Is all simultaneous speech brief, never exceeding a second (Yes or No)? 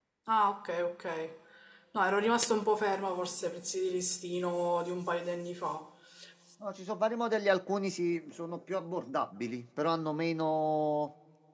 Yes